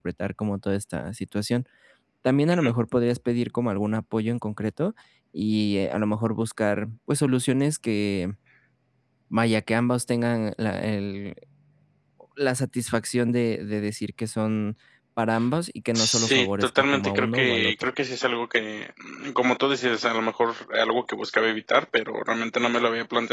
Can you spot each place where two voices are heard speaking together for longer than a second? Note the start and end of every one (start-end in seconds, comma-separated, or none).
15.9-17.7